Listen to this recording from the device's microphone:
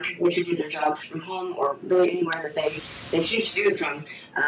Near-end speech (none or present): none